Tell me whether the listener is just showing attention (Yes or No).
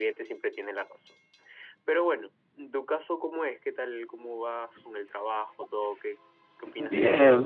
No